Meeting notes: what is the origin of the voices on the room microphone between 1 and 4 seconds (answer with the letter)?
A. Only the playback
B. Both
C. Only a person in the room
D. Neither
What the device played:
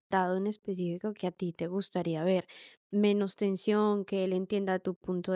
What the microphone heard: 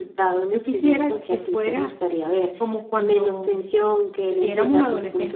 B